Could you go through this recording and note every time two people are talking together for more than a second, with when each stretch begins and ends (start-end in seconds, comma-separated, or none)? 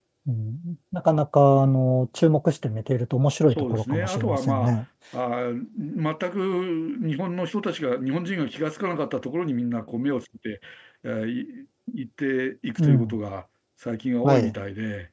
3.5-4.7